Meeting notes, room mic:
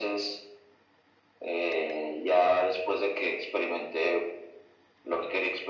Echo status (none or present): present